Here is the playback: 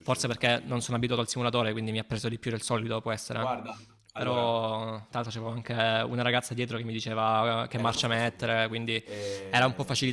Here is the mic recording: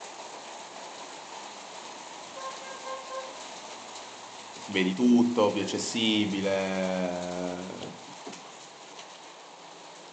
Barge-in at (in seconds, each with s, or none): 4.6 s